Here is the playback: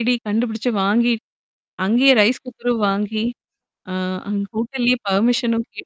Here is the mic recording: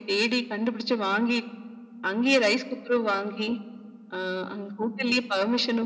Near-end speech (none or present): none